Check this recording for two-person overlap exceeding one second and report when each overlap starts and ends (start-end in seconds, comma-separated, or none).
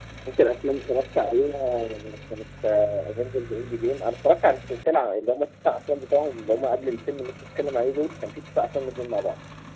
none